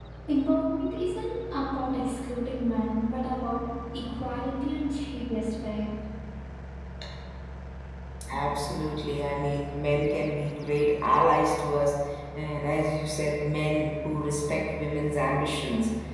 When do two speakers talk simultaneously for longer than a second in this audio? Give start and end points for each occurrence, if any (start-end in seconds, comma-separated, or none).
none